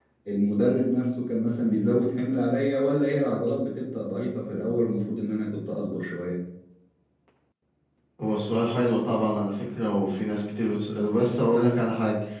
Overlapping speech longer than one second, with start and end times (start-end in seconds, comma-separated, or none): none